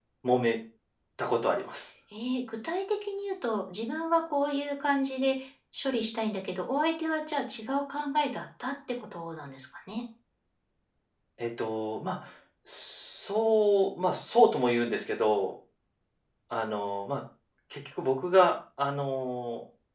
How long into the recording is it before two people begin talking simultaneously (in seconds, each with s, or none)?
none